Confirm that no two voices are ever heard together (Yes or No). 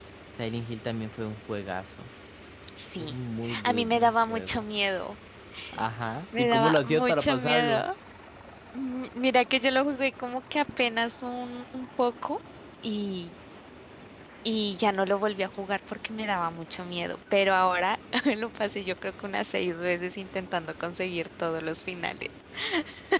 No